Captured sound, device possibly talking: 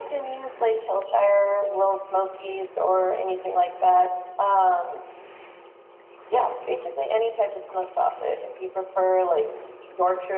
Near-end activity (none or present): none